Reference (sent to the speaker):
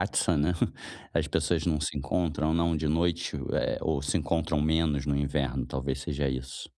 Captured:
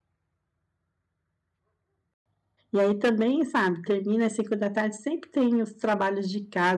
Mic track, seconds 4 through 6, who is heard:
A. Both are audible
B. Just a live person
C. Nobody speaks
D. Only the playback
B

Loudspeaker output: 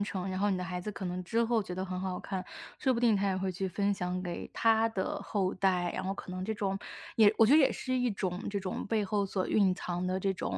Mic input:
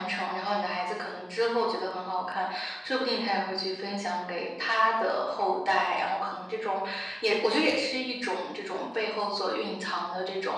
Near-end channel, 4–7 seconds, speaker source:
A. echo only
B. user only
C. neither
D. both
A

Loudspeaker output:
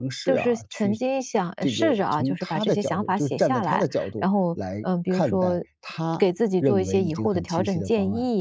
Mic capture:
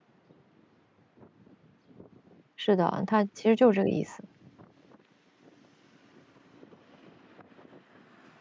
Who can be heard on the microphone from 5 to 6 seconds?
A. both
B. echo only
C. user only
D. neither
D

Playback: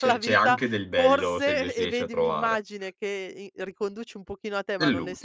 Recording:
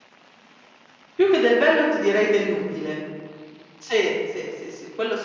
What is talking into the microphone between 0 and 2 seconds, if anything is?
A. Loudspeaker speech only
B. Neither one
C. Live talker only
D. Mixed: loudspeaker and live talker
C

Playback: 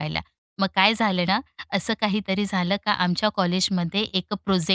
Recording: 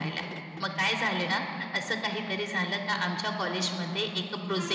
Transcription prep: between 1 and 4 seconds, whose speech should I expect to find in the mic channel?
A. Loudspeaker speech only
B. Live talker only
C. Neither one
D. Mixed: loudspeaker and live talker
A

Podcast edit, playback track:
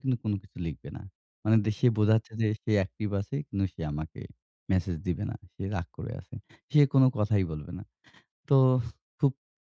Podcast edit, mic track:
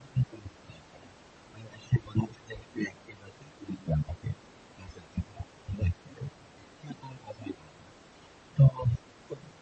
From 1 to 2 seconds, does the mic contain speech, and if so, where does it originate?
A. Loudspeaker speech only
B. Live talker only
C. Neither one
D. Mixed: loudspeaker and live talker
A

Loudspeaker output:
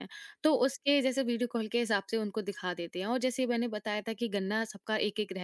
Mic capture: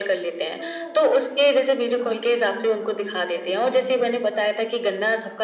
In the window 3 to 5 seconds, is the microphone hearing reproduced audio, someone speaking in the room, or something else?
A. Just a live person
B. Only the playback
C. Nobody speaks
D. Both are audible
D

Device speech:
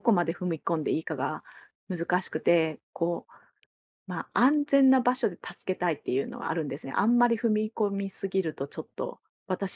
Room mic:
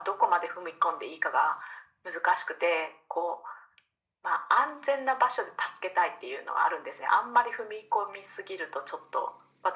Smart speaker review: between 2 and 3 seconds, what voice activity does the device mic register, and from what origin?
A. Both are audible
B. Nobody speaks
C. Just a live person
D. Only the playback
D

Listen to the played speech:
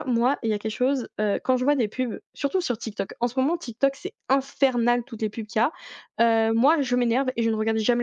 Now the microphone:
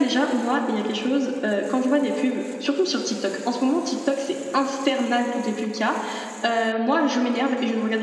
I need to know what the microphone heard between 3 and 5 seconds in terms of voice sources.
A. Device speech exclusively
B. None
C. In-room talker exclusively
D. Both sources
A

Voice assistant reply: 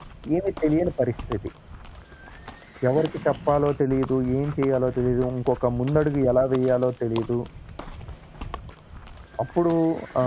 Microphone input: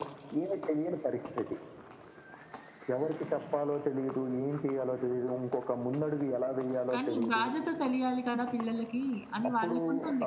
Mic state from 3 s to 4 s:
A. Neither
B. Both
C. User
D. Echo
D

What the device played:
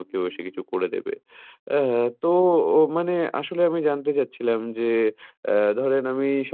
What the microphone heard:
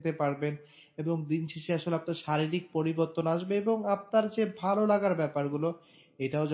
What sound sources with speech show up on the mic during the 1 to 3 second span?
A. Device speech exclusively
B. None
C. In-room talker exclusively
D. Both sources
C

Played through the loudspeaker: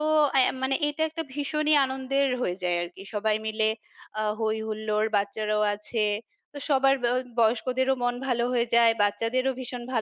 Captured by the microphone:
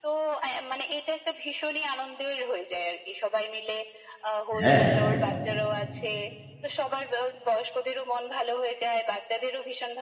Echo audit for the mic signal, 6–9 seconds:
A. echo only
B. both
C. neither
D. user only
A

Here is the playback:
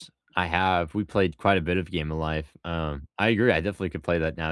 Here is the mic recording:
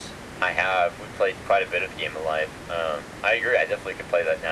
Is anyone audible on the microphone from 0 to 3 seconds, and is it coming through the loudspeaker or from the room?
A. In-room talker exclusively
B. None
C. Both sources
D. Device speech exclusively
D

